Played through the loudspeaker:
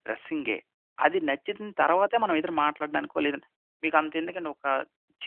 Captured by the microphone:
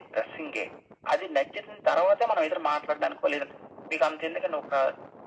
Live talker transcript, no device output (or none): none